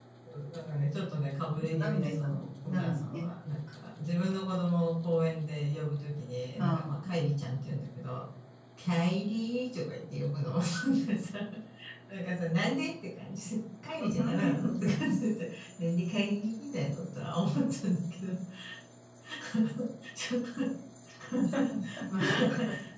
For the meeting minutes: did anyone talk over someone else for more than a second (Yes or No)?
Yes